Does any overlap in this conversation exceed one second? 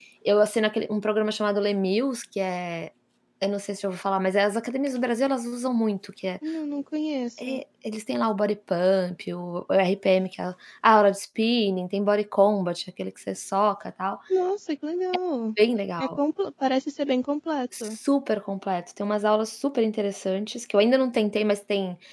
No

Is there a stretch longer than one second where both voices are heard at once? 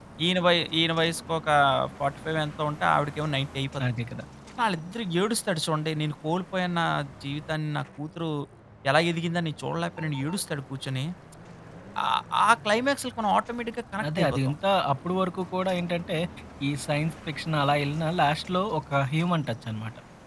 No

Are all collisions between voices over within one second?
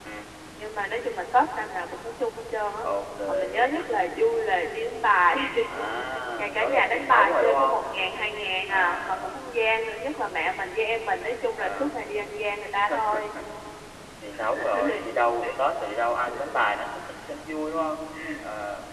No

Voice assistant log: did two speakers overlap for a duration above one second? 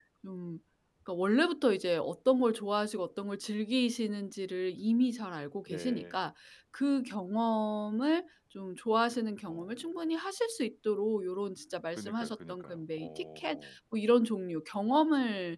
Yes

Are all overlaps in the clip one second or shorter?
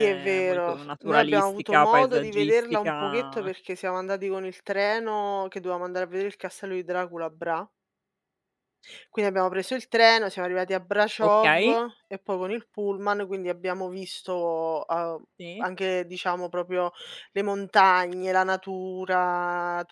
No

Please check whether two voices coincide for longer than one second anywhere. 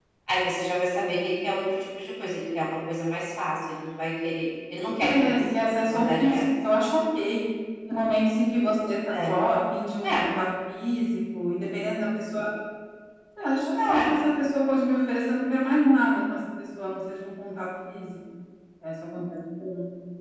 Yes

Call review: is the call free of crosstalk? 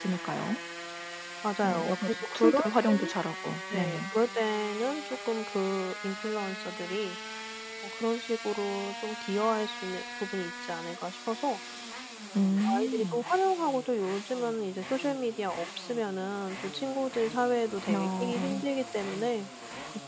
No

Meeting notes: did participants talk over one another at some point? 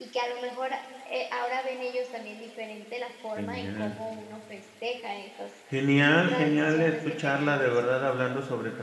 Yes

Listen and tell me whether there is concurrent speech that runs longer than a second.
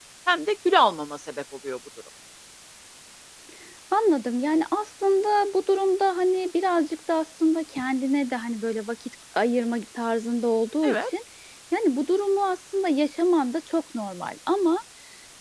No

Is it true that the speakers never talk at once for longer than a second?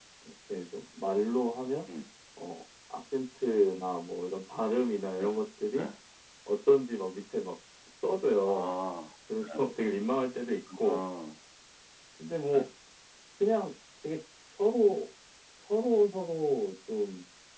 Yes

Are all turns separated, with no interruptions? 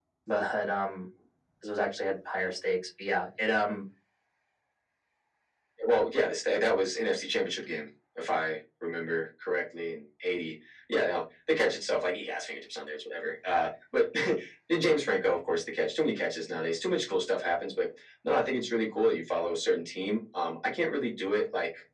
Yes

